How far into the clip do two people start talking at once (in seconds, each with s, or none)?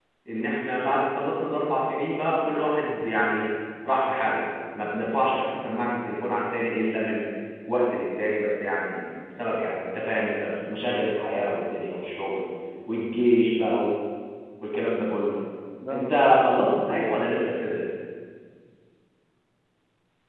15.9 s